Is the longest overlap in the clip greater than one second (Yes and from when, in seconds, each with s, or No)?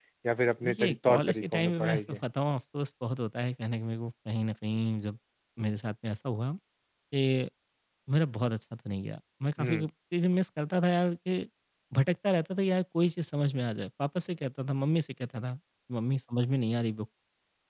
Yes, from 0.6 s